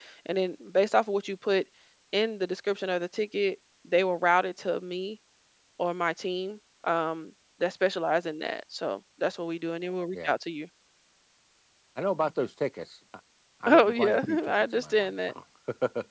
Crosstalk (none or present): present